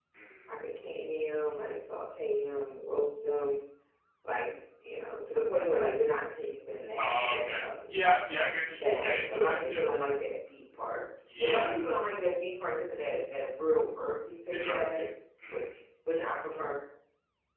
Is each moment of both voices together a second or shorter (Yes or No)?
No